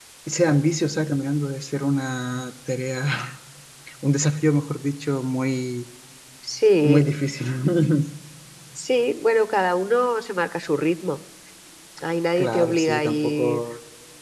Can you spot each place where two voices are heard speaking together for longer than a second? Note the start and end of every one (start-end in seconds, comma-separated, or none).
12.4-13.6